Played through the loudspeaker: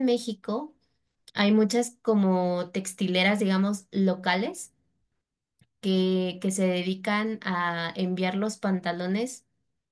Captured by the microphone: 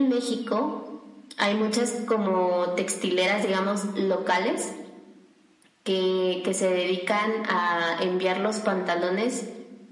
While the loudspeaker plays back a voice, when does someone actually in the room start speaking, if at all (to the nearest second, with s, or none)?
none